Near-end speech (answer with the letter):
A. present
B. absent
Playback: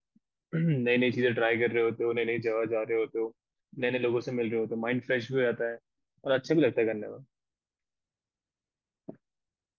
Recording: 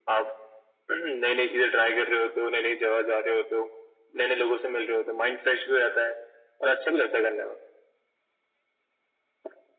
B